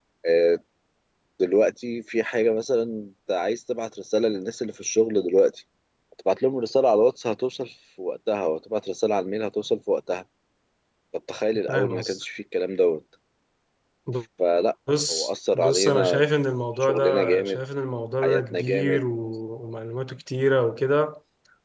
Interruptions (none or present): present